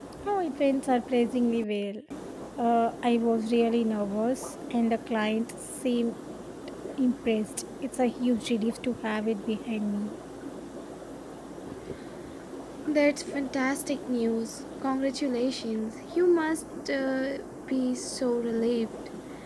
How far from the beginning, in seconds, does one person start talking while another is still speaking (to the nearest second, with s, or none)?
none